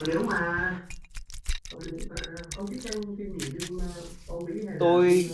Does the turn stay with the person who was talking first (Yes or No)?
No